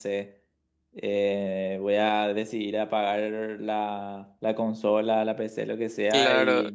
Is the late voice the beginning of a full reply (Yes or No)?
Yes